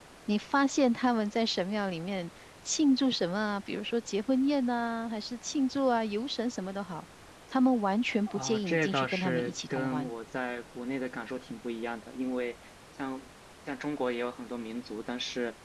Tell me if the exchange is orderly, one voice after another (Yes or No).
No